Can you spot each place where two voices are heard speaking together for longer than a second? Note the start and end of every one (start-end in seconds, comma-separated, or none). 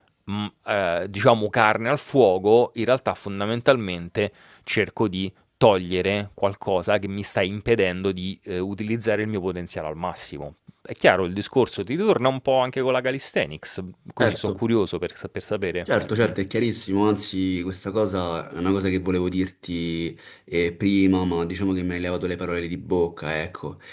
none